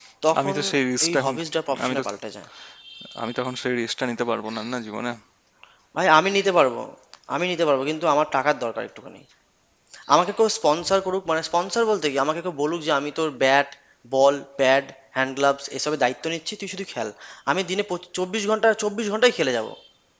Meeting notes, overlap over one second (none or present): none